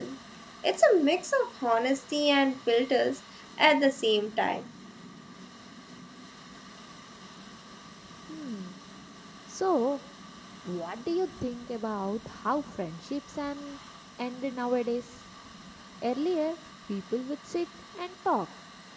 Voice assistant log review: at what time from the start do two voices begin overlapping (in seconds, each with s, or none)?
none